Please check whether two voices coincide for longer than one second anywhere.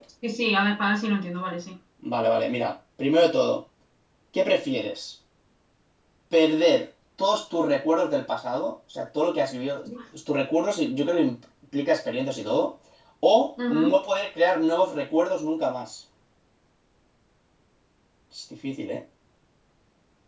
No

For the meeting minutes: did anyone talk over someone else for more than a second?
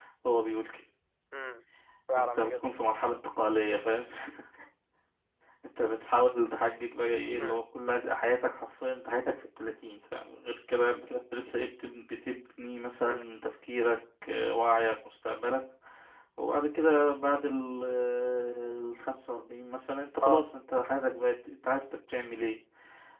No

